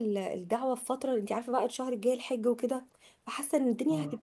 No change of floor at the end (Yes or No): Yes